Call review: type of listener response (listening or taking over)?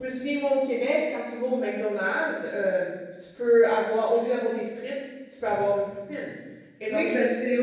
taking over